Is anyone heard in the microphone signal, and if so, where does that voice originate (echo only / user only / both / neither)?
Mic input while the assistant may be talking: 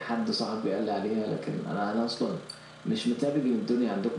echo only